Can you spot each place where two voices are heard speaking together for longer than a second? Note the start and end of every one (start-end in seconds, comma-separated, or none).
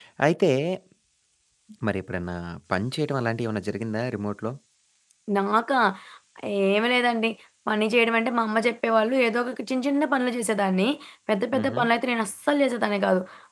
none